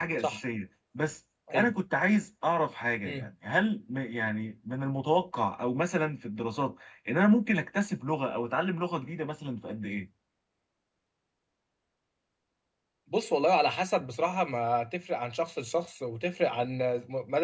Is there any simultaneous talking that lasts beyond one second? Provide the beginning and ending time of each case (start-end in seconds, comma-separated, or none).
none